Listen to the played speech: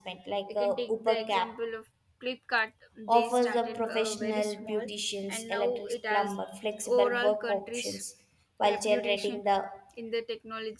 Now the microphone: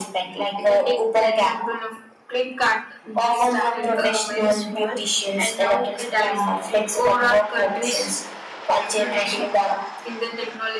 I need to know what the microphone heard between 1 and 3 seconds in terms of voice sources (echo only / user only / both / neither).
echo only